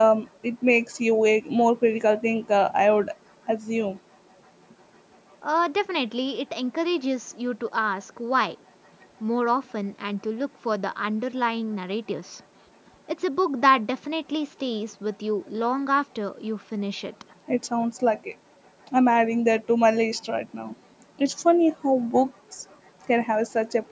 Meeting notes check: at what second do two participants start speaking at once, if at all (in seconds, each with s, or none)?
none